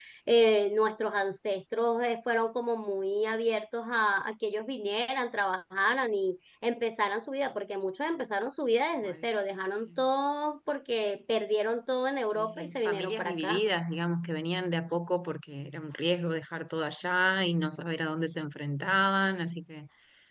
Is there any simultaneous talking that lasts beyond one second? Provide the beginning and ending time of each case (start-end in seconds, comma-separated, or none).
12.3-13.6